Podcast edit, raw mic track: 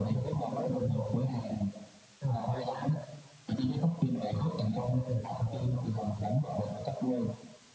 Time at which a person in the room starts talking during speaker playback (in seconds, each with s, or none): none